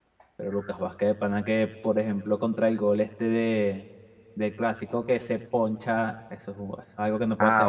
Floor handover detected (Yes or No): Yes